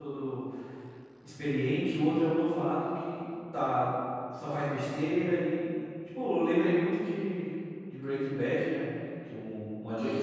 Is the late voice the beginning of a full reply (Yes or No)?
No